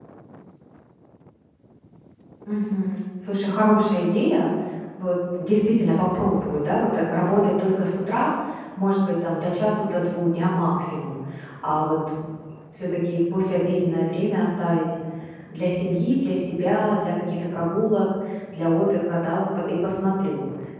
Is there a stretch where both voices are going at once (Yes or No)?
No